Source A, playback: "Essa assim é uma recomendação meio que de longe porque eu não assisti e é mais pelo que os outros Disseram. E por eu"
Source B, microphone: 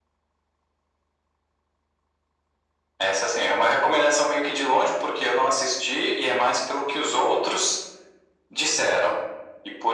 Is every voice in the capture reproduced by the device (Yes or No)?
Yes